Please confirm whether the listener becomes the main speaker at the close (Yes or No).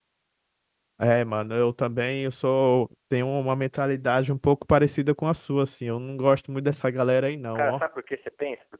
Yes